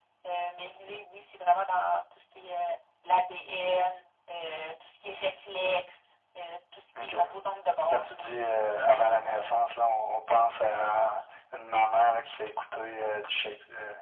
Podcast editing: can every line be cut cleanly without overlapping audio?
No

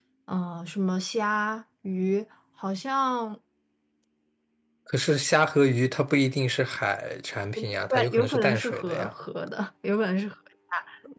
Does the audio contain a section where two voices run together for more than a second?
Yes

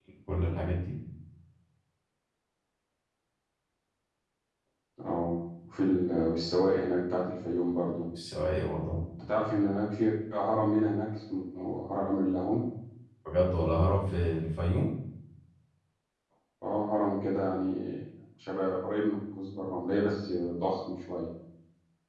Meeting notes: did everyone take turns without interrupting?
Yes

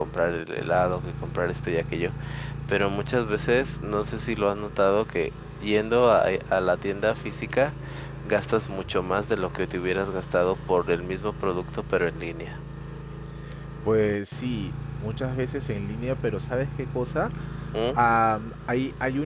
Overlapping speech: No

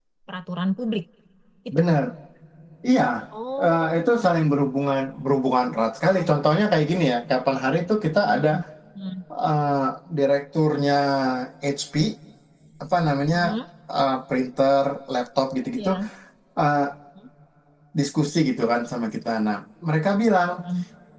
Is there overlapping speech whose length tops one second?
No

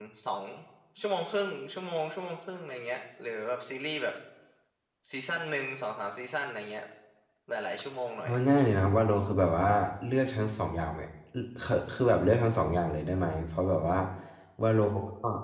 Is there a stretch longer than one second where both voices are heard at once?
No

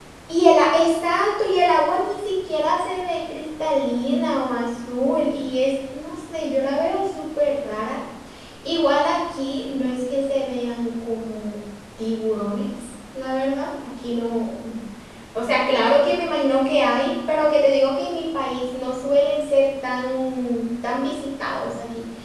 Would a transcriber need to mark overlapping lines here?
No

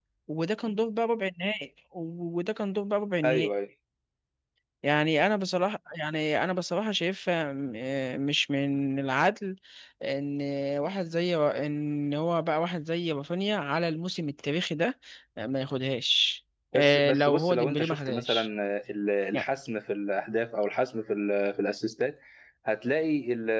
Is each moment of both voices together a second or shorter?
No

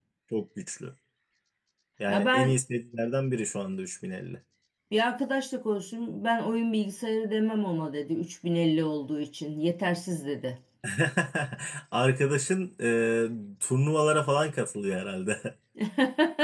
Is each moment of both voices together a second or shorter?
Yes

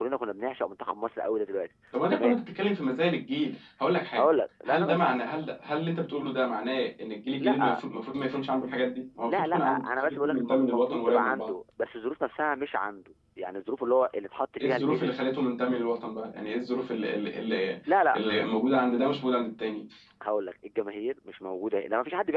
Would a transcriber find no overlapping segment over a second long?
No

